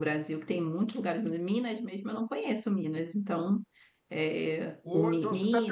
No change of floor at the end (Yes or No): No